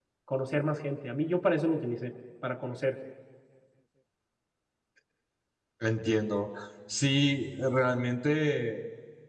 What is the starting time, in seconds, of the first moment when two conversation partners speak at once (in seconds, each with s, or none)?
none